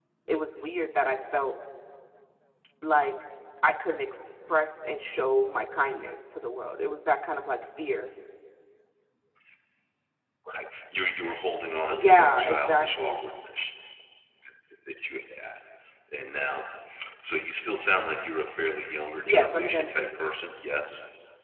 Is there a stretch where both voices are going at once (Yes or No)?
Yes